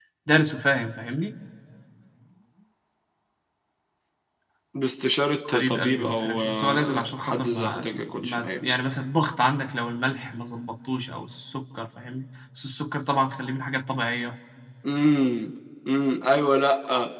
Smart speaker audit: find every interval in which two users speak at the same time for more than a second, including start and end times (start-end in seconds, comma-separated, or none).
5.4-8.6